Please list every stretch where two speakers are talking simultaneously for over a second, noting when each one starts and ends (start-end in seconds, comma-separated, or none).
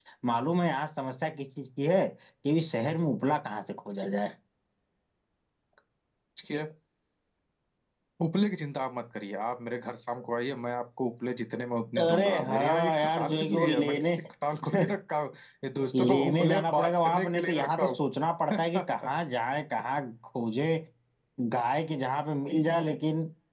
12.0-14.2, 15.9-18.0